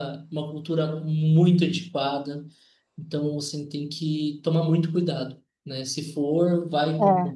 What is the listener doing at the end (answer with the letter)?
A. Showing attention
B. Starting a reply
A